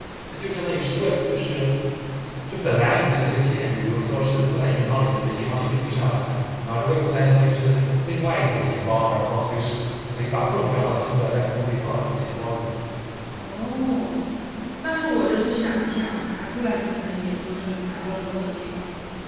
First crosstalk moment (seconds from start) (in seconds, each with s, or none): none